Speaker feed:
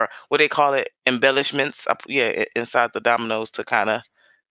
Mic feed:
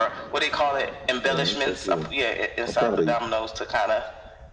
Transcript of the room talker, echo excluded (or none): Yeah, that's so cool. I'm proud of you.